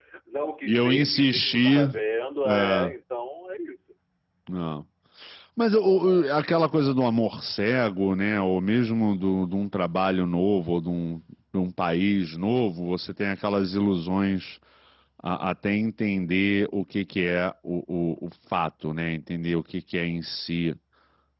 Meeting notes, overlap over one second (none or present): present